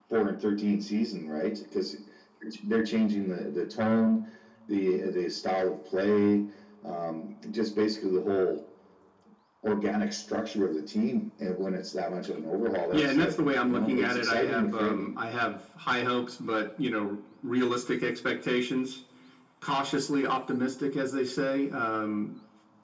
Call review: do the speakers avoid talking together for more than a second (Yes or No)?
No